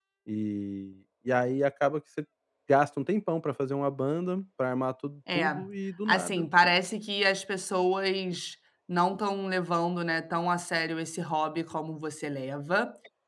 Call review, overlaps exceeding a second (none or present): none